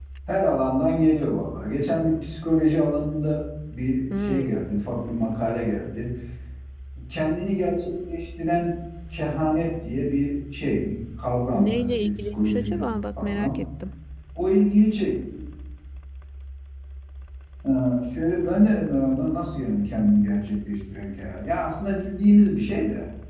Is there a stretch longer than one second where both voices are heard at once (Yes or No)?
Yes